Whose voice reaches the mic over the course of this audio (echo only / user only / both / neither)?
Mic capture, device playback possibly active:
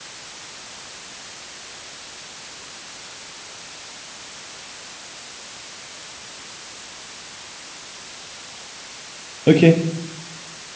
user only